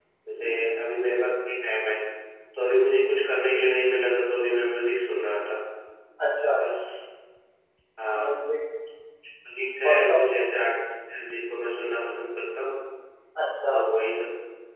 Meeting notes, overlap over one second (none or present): none